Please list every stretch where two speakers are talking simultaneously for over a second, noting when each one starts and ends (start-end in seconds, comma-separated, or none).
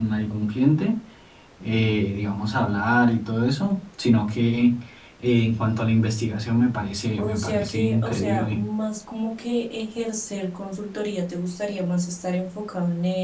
7.2-8.6